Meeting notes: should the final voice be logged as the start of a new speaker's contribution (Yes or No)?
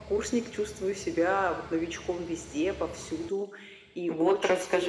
Yes